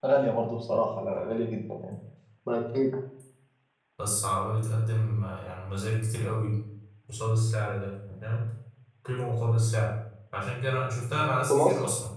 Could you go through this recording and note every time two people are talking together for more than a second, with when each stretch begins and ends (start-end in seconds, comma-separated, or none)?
none